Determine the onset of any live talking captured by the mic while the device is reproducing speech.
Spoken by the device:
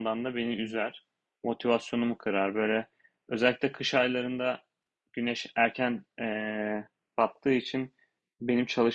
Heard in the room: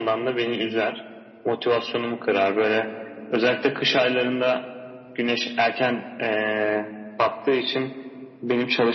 none

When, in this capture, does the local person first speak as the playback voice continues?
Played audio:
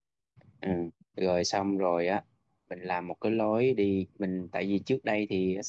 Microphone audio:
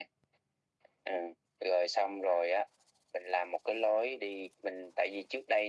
none

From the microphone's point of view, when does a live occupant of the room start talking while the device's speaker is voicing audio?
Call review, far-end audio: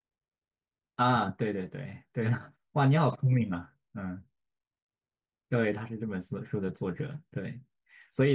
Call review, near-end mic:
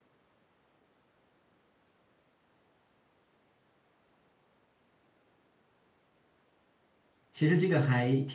7.3 s

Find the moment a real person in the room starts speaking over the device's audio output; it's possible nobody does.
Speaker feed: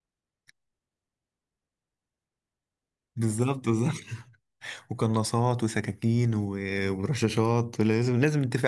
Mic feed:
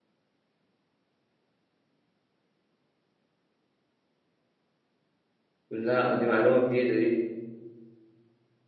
5.7 s

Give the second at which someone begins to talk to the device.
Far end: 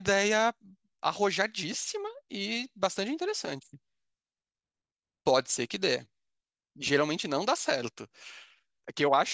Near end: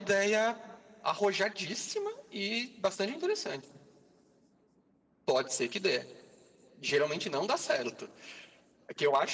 none

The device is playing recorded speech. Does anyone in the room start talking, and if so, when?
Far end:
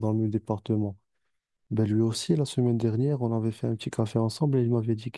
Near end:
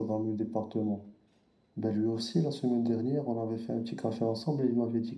none

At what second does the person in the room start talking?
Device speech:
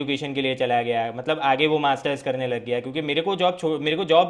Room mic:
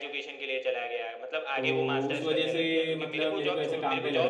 1.6 s

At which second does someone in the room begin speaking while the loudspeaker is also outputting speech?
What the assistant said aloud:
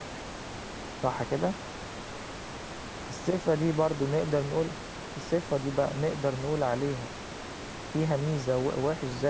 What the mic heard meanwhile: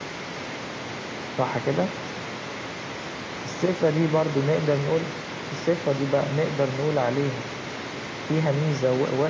none

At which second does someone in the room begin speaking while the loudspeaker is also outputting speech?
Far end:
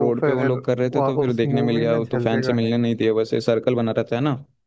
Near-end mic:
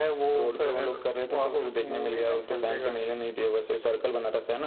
none

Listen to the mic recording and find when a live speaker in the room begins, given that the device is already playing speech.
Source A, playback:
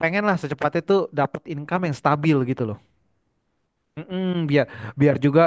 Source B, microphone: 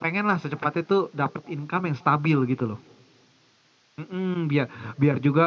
none

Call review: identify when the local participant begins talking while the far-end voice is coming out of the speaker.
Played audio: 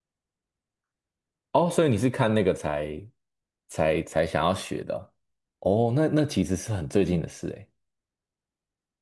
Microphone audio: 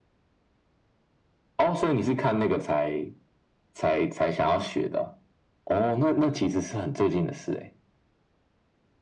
none

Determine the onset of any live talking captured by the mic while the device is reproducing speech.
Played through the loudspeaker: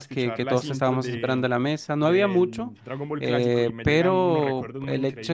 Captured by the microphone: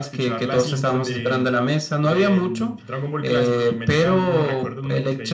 none

